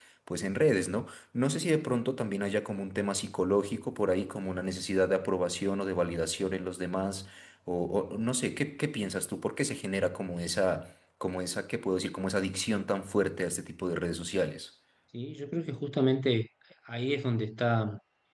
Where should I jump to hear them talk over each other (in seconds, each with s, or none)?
none